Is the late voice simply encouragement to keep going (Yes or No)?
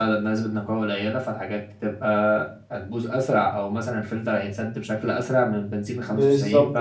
No